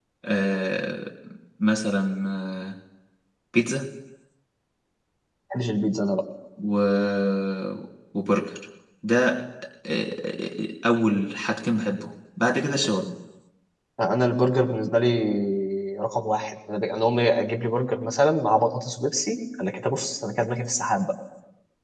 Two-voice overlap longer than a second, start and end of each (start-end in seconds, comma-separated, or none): none